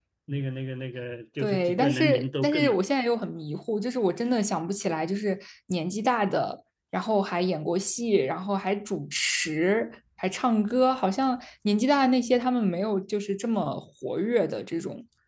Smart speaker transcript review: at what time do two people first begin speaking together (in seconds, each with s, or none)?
1.4 s